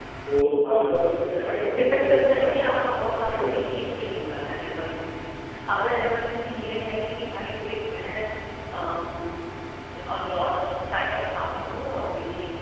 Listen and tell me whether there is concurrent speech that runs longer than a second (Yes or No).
Yes